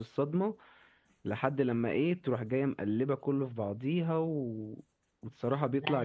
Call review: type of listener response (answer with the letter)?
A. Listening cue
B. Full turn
A